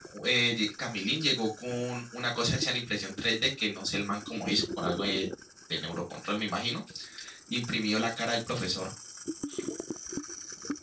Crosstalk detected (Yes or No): No